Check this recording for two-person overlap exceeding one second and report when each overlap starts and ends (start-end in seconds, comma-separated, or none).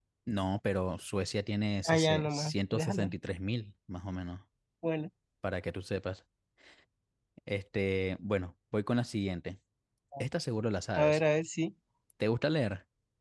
1.8-3.1